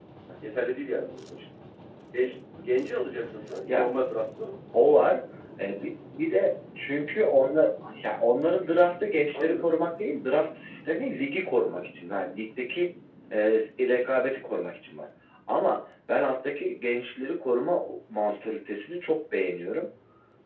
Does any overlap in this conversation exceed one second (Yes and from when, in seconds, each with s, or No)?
No